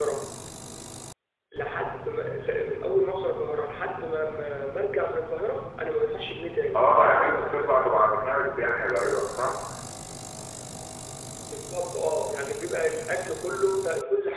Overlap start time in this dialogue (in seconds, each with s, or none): 6.7 s